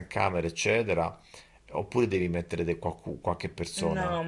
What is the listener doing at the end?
taking over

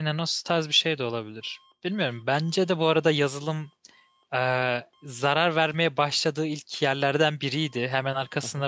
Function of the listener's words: listening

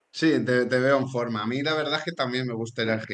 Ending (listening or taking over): listening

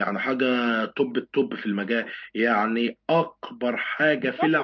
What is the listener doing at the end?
taking over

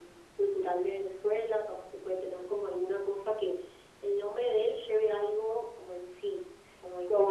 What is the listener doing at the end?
taking over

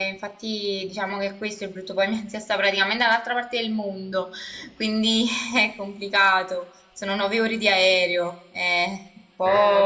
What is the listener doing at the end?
listening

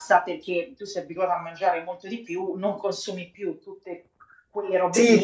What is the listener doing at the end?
taking over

